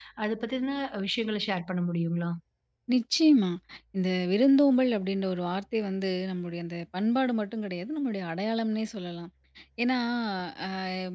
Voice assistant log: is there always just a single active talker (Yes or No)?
Yes